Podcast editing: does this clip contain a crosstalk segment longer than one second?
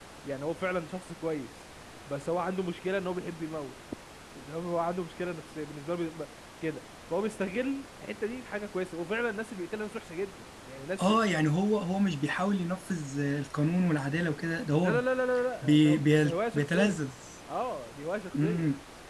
Yes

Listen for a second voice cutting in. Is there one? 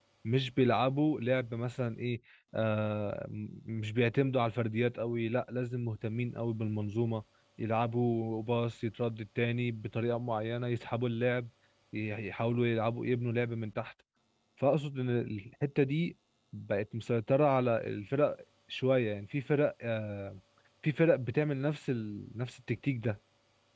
No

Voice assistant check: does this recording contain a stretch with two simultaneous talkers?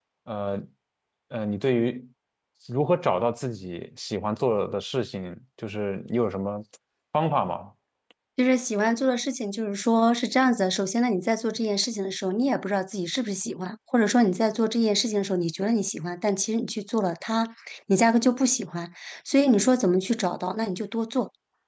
No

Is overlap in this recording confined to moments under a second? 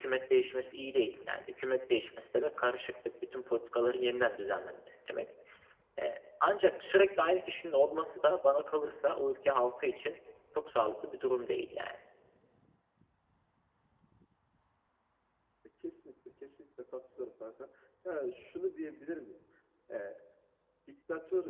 Yes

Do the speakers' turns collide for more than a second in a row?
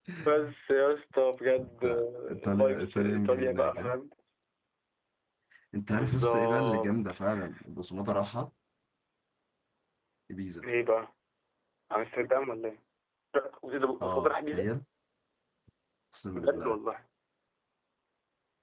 Yes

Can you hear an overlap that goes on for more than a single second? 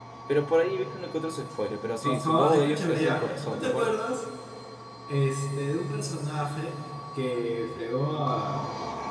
Yes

